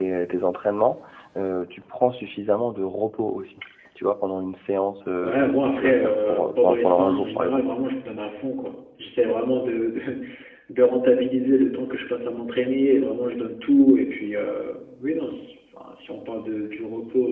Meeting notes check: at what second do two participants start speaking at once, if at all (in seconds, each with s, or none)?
5.2 s